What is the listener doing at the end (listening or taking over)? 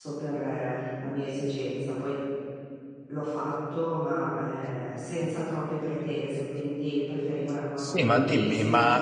taking over